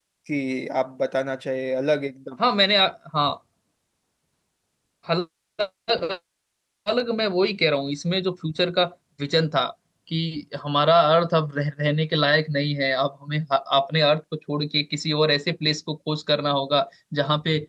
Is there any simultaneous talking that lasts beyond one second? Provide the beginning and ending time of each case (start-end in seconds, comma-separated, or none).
none